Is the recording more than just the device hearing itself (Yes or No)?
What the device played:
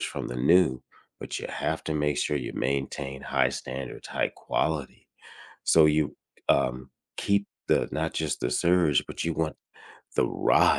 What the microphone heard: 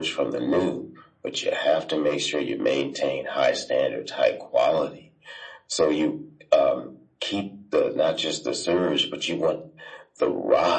No